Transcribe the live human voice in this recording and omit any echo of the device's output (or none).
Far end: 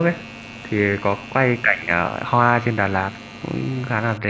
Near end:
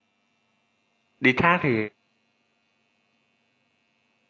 đi thác thì